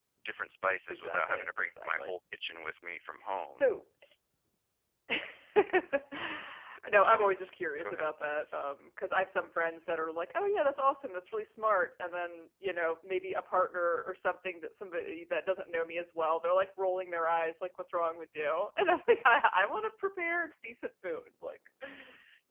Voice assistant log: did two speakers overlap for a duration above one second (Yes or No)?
Yes